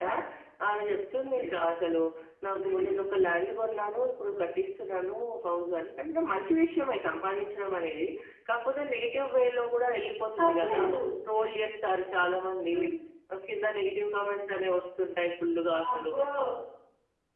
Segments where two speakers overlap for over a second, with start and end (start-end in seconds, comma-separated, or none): none